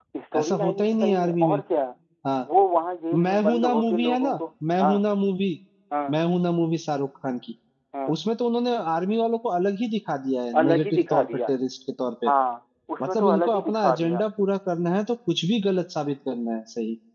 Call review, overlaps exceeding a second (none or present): present